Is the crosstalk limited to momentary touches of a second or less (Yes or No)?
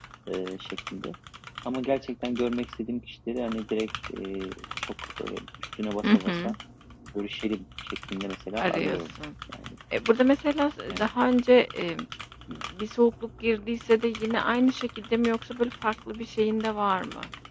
Yes